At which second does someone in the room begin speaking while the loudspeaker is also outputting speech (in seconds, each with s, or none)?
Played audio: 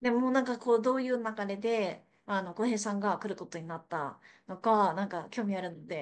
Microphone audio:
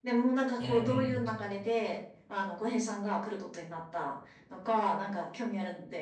0.6 s